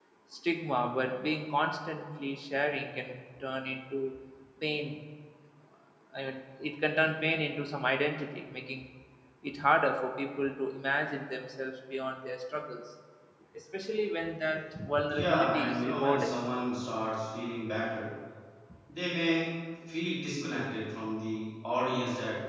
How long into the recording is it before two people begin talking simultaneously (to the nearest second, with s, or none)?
15 s